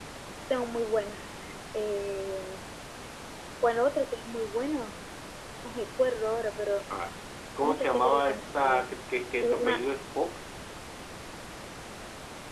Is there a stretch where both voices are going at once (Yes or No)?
Yes